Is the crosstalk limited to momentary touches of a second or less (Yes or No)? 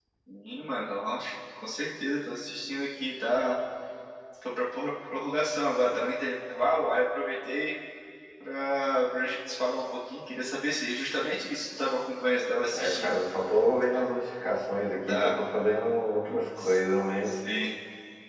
Yes